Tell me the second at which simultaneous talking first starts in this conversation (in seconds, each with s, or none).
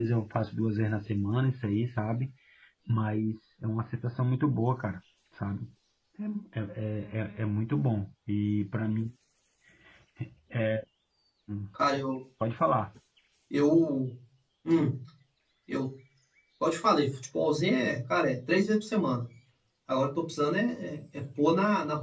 none